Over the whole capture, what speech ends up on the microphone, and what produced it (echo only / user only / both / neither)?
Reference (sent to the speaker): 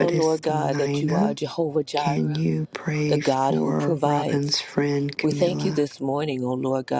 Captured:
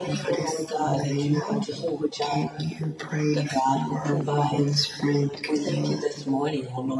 echo only